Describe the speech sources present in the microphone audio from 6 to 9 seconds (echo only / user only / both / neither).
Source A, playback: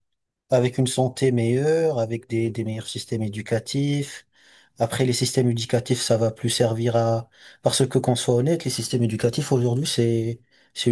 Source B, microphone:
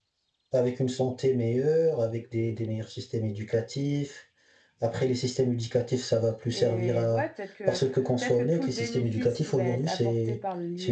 both